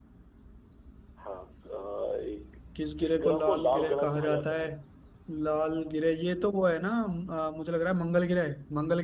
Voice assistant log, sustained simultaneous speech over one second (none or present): present